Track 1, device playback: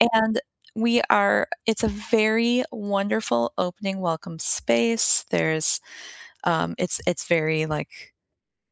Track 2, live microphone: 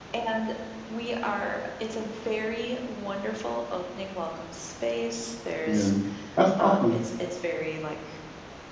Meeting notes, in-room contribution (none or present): present